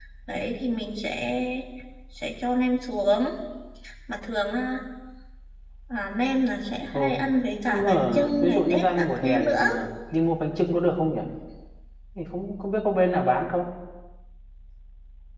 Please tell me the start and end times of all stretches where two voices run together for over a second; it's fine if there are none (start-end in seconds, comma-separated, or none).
7.7-9.6